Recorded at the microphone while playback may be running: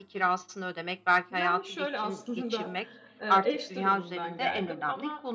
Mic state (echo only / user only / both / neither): both